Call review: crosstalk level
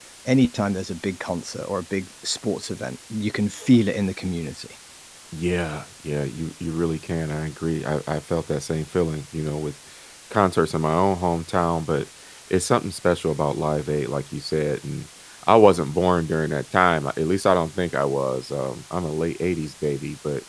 none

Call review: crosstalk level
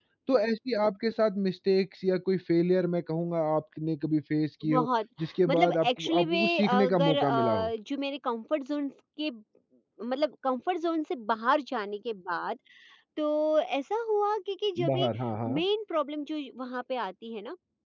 present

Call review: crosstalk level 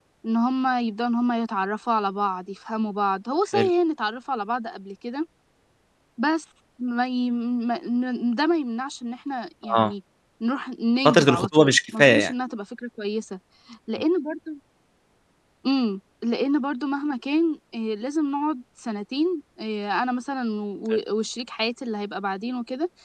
present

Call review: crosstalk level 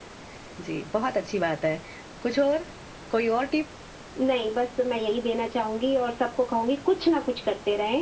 none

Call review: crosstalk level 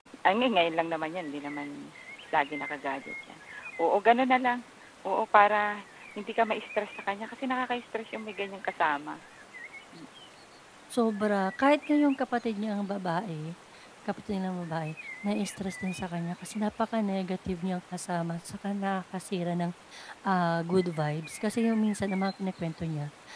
none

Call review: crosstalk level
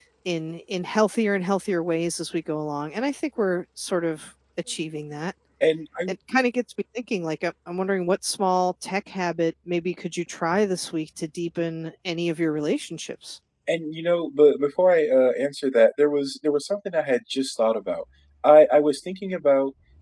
none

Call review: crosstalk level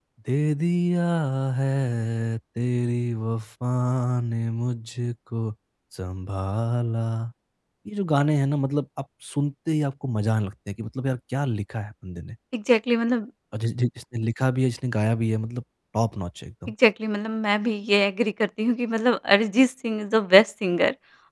none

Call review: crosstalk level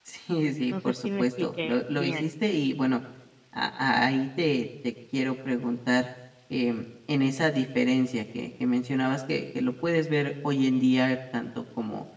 present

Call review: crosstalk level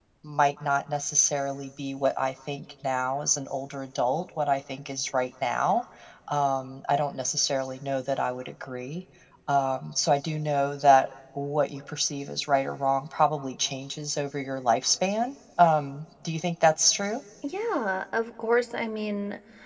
none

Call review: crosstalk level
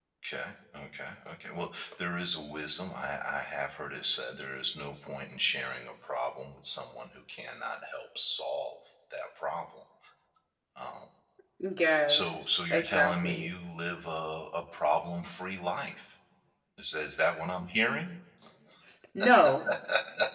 present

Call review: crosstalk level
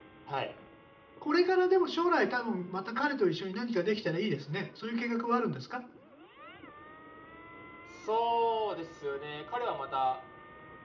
none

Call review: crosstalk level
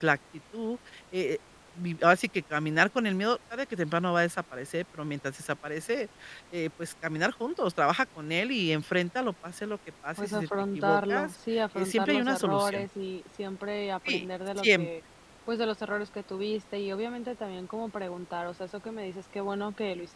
present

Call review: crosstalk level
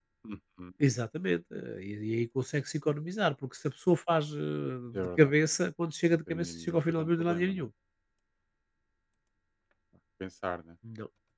present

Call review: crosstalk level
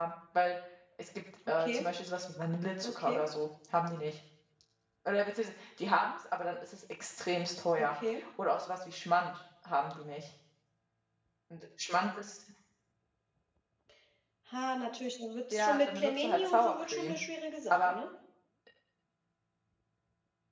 present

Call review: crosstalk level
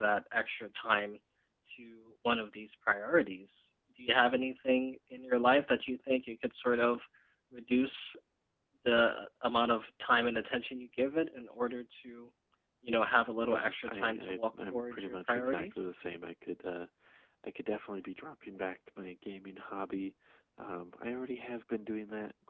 present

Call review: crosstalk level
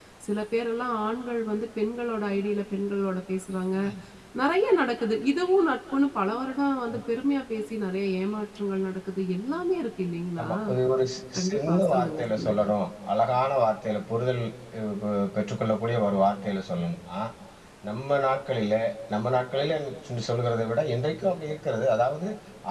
present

